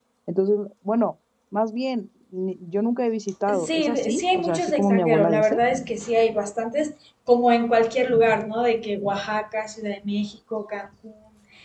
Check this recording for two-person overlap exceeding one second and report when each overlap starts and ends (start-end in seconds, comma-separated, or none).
3.5-5.6